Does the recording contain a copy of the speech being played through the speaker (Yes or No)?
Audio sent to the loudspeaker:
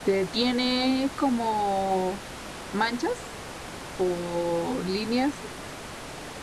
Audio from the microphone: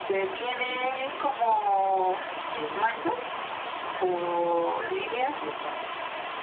Yes